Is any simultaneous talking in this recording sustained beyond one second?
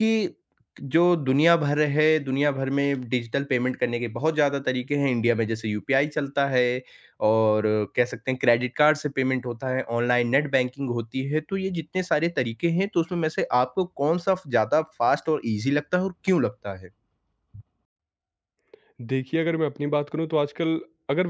No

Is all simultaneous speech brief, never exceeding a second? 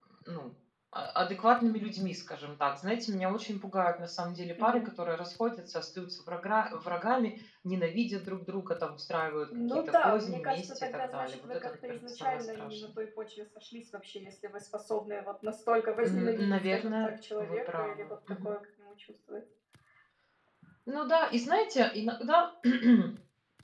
No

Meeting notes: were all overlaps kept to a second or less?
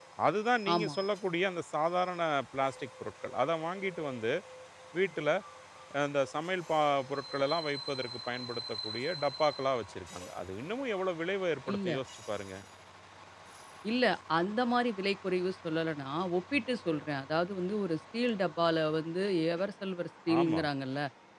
Yes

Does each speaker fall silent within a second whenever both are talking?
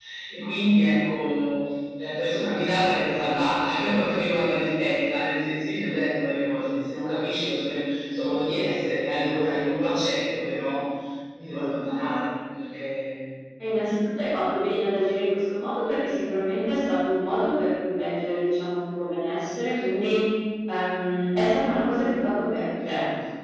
Yes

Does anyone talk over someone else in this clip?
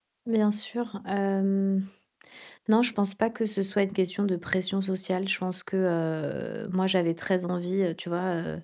No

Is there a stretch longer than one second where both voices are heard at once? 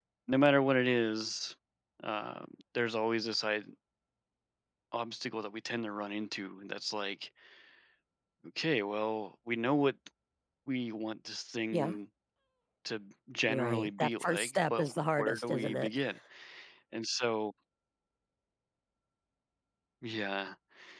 Yes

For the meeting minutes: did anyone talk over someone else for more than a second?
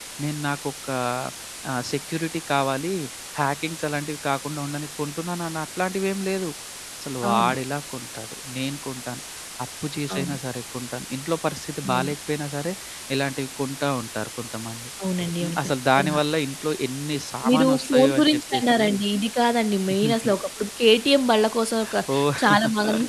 Yes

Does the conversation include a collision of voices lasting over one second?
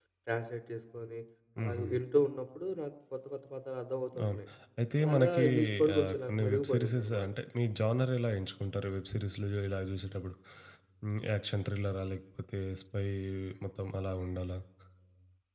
Yes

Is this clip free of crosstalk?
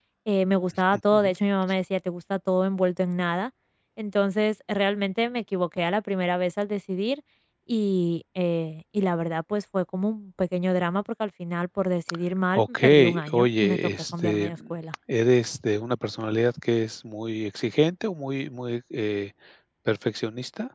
No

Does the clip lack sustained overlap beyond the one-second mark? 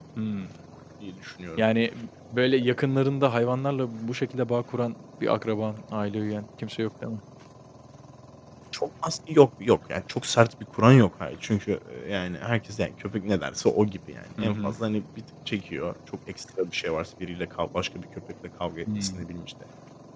Yes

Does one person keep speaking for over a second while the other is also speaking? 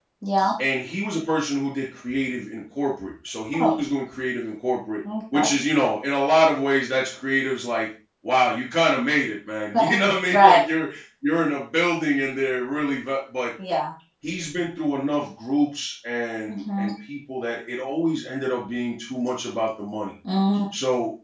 No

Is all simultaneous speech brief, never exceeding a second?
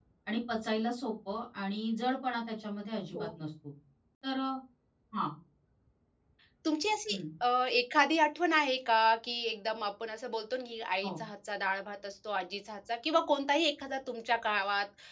Yes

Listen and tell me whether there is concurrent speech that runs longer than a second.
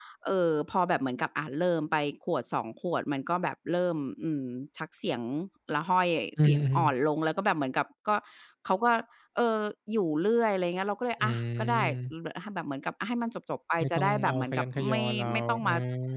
Yes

